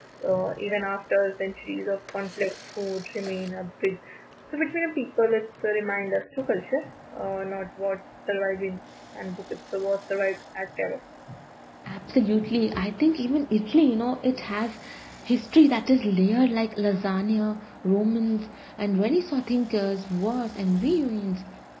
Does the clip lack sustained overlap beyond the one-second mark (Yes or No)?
Yes